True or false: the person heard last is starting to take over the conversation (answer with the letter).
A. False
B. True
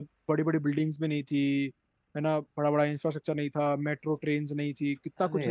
B